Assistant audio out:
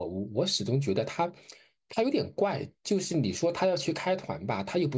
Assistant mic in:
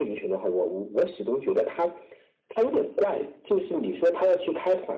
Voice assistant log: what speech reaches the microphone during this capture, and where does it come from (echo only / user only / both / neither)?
echo only